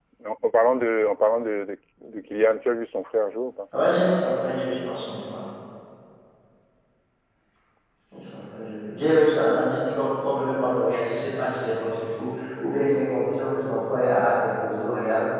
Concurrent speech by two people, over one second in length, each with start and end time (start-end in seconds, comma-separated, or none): none